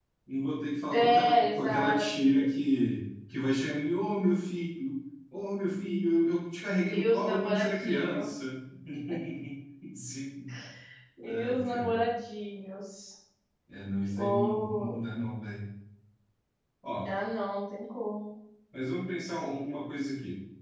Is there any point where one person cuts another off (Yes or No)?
Yes